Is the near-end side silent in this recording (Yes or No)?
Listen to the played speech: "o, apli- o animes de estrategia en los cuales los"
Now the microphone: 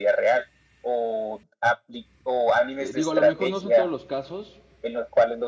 No